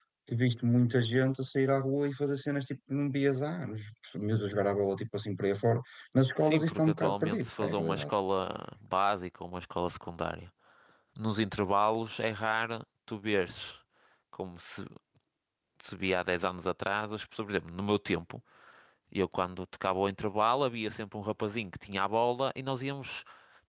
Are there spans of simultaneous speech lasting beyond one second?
Yes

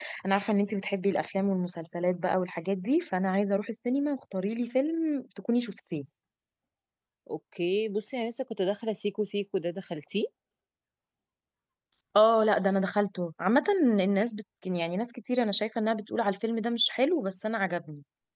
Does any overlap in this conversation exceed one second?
No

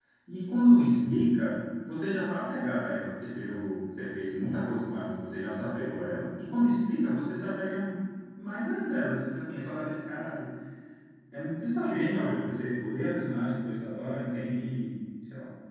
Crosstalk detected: No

